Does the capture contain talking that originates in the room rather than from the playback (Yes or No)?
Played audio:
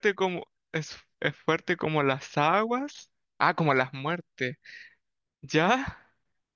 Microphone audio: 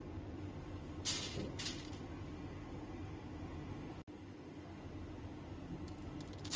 No